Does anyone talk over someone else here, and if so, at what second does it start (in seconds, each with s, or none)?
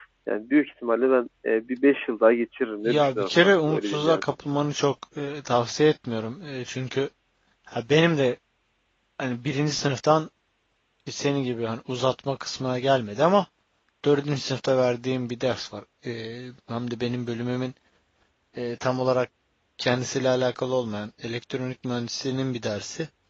2.9 s